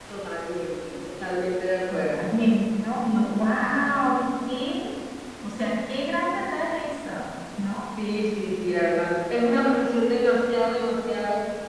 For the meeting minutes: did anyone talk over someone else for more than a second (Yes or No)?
No